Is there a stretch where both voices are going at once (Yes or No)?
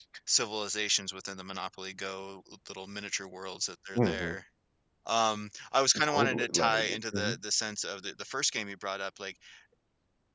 Yes